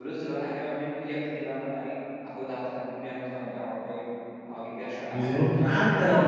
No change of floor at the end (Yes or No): No